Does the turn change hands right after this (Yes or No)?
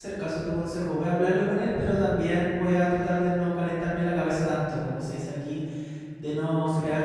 No